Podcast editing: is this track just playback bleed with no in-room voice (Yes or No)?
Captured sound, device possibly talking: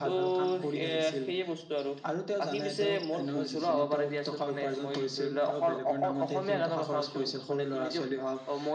Yes